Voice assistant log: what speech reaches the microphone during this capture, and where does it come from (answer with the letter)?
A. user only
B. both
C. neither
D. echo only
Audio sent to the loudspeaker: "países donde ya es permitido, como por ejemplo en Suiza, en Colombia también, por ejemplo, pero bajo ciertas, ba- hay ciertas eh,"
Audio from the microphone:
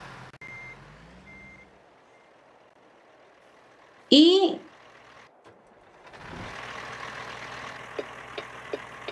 A